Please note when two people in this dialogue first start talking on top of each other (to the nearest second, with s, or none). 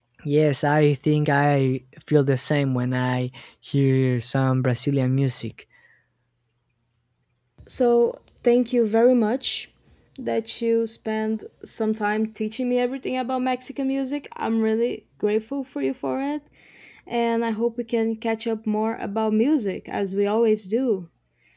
none